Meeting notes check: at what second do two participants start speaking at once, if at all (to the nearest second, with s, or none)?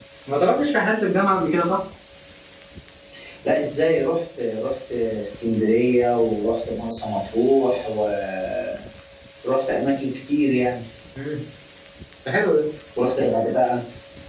none